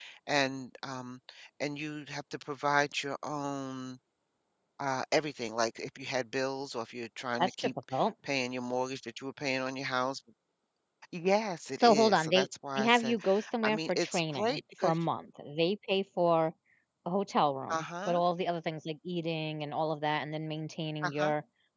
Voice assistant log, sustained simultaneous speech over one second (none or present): present